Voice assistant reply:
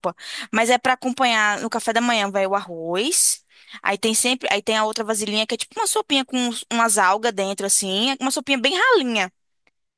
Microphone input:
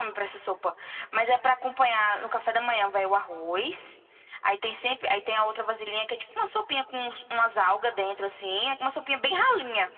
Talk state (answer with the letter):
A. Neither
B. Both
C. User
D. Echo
D